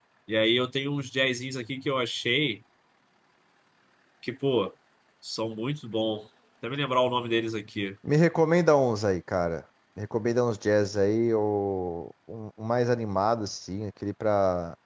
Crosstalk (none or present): none